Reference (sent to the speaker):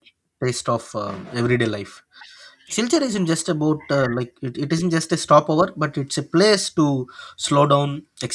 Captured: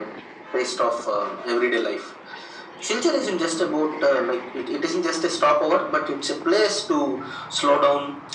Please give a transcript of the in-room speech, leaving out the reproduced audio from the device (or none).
none